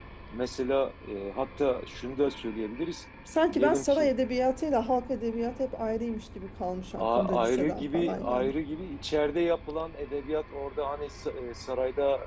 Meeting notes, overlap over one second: present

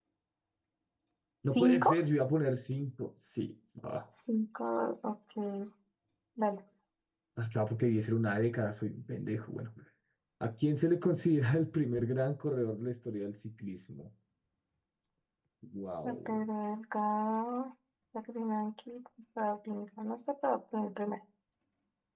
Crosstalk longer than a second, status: none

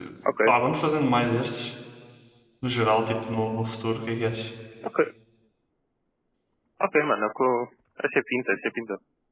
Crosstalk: none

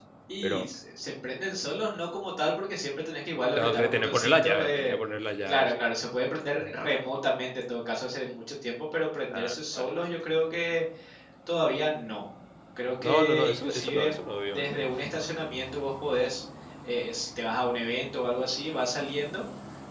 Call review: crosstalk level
present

